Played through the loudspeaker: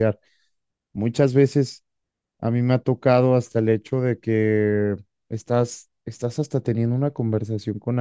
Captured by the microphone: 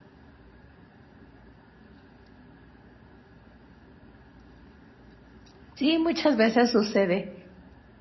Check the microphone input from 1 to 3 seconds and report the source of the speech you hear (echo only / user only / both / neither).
neither